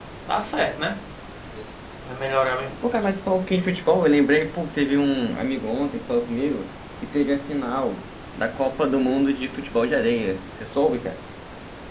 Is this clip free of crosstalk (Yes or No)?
Yes